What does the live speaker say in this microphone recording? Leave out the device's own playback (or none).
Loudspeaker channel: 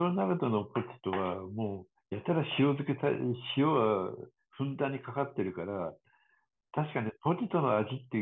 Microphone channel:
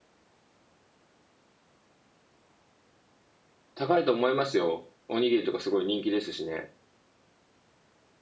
高いと思いますよ。おにぎりとかすごい人気ですしね。